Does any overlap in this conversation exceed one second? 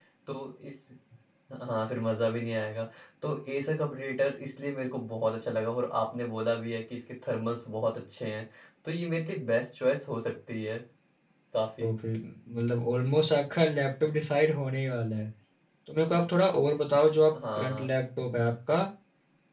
No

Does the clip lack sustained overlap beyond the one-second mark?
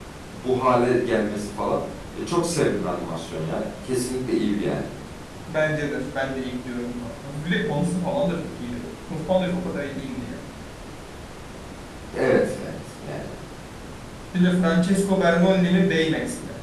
Yes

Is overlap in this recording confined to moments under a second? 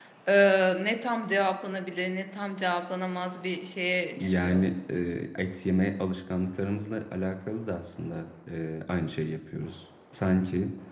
Yes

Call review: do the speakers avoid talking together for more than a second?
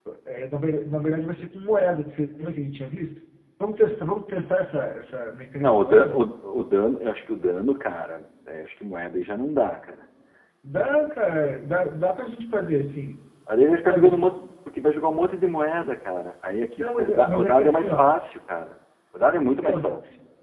No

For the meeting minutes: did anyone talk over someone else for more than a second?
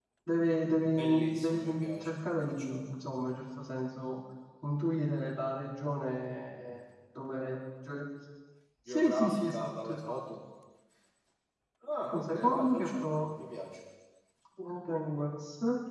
Yes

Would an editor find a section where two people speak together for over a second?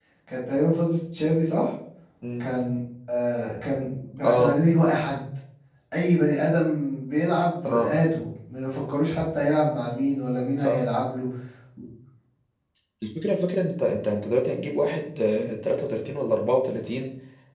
No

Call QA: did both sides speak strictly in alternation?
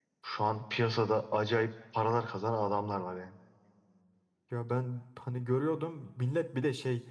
Yes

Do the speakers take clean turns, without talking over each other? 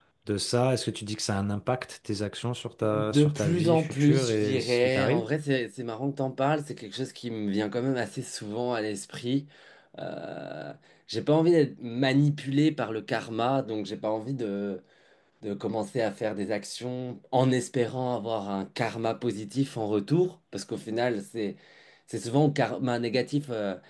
No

